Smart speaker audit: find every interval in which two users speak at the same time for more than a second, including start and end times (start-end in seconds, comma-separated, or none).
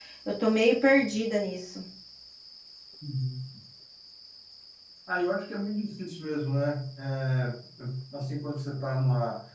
none